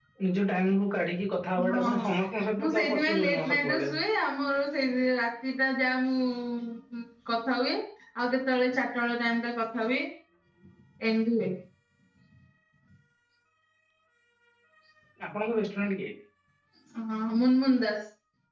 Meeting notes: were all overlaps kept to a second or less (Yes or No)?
No